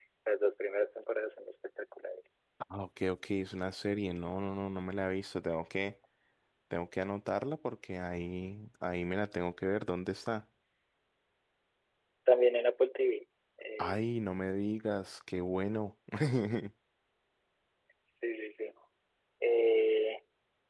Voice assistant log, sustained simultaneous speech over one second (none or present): none